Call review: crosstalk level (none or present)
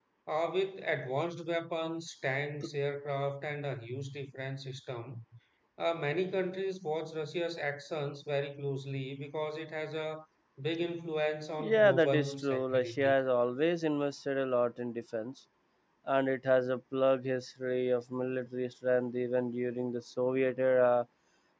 present